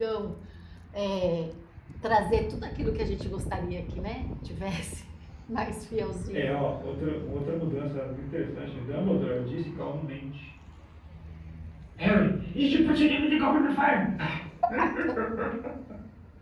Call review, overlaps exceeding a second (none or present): none